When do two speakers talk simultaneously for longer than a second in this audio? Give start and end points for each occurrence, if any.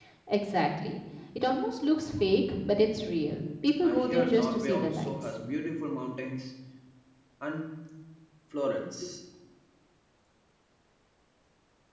3.8-5.1

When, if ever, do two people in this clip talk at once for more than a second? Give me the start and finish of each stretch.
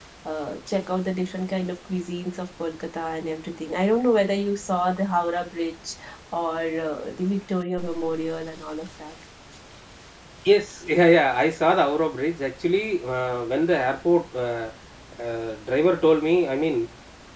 none

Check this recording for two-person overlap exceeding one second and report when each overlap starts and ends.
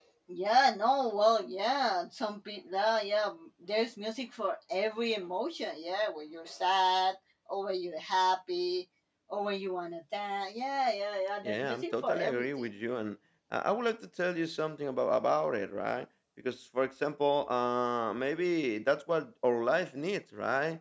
11.4-12.7

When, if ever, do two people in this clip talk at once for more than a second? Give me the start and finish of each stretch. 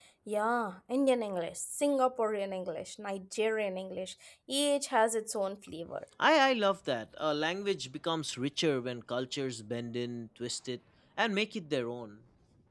none

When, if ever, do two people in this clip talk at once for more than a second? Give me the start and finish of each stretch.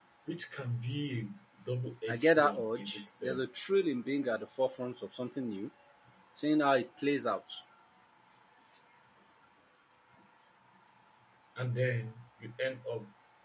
2.1-3.4

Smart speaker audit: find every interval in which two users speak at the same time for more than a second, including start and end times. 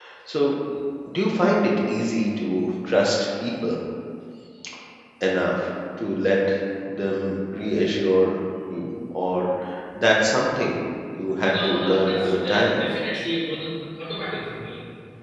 11.4-12.8

